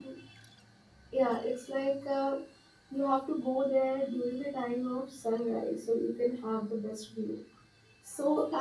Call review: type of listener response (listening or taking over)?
taking over